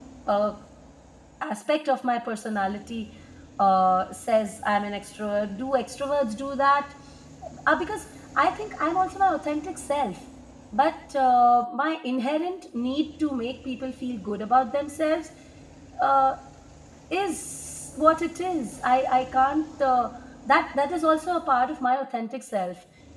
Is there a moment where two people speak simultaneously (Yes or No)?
No